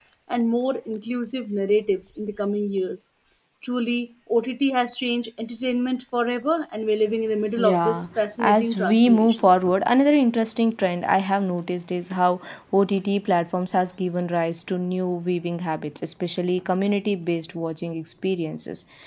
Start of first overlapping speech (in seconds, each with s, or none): 7.6 s